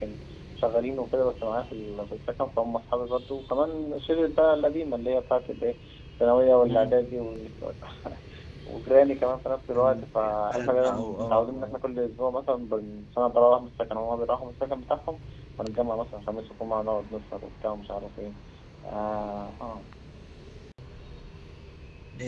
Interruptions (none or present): present